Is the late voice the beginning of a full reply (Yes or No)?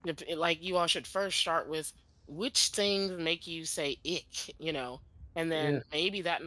No